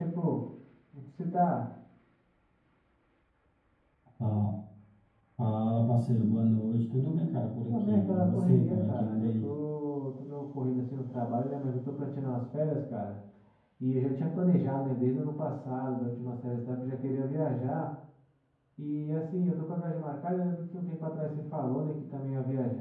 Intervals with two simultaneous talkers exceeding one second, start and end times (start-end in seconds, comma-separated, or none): 7.7-9.5